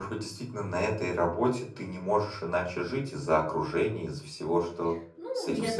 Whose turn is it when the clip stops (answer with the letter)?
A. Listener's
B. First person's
A